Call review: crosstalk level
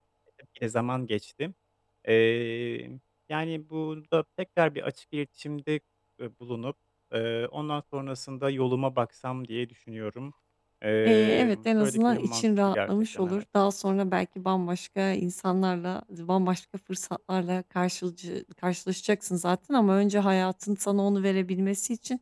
present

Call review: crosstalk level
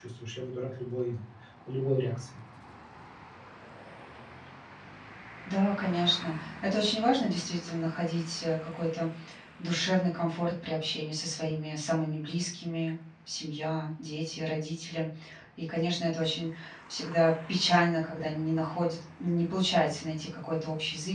none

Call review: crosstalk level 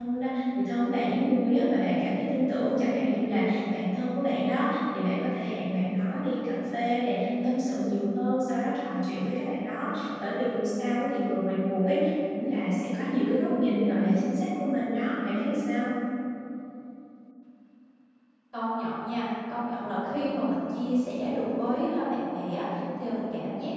none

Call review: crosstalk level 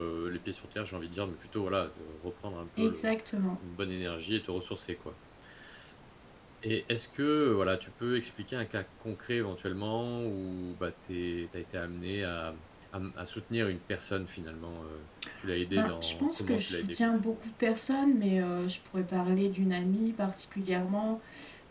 present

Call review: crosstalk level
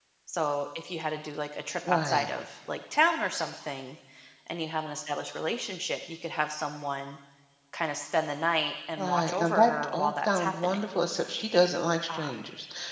present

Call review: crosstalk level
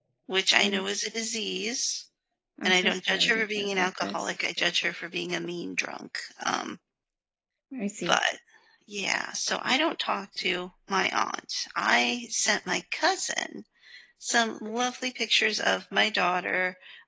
present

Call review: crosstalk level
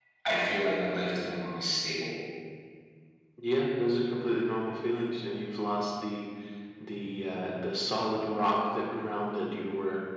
none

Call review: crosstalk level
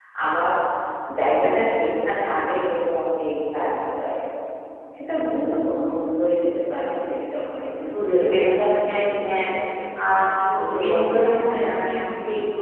present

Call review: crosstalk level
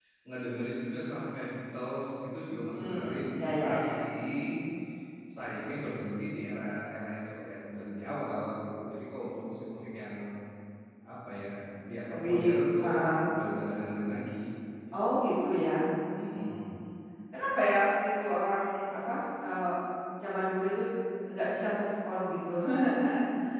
present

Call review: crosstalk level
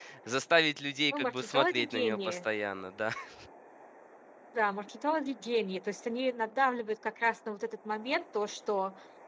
present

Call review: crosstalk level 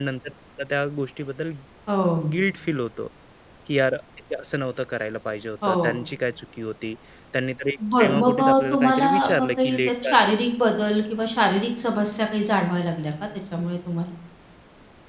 present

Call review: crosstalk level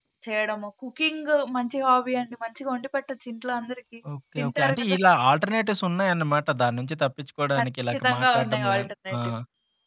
present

